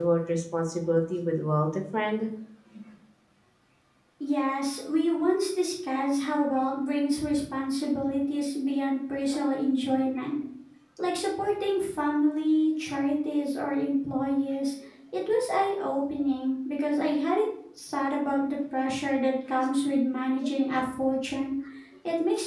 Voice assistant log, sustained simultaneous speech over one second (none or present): none